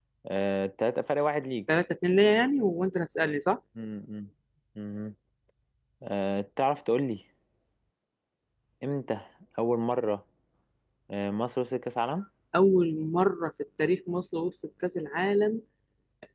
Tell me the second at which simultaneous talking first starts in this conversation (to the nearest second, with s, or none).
none